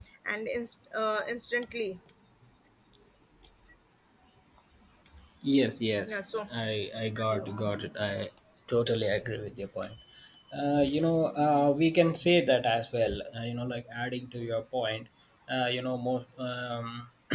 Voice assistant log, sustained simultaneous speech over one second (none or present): none